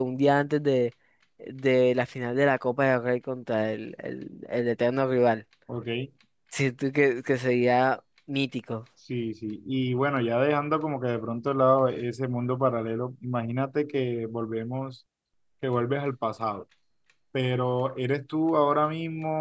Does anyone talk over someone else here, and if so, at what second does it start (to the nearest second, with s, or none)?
none